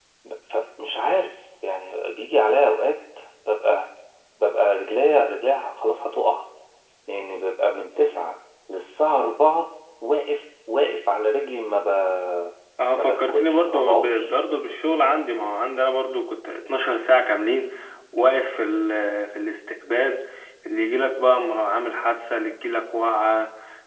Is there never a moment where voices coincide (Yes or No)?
No